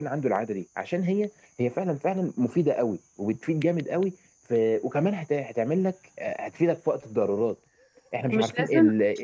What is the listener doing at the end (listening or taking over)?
taking over